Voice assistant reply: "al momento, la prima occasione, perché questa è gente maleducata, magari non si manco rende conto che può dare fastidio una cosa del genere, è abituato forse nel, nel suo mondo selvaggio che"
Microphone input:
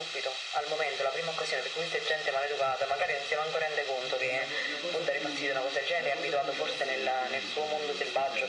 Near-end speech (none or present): present